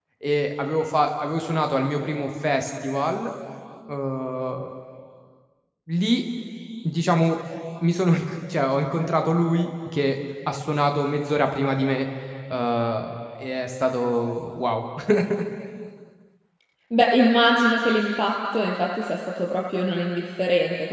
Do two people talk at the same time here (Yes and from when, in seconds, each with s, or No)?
No